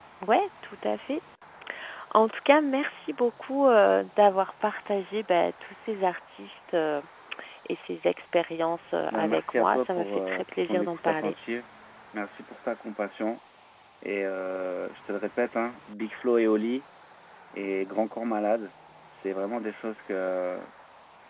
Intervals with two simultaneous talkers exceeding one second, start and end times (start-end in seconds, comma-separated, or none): 9.1-11.3